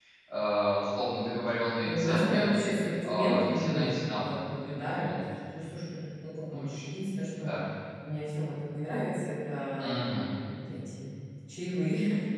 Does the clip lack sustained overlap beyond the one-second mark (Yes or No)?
No